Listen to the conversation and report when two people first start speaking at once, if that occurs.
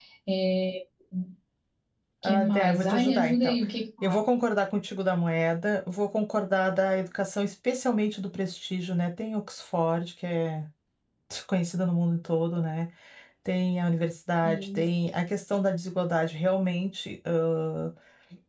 2.2 s

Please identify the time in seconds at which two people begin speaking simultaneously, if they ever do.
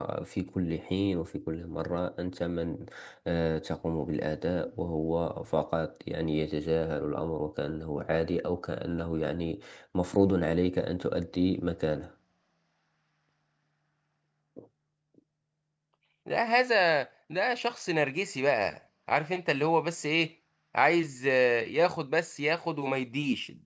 none

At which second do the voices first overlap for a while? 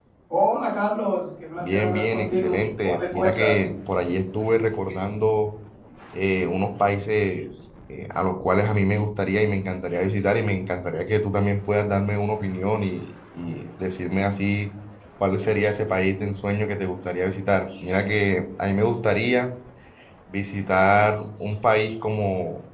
1.6 s

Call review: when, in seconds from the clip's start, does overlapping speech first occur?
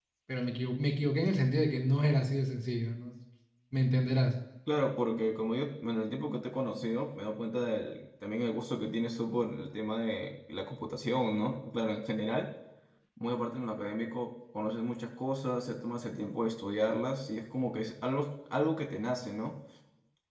none

